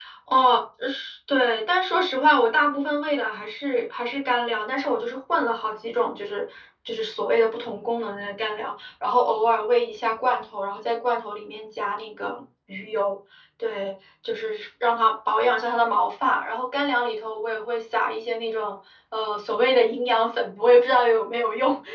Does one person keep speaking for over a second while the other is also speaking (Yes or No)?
No